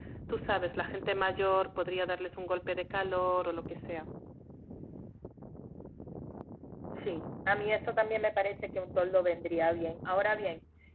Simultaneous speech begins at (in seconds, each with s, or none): none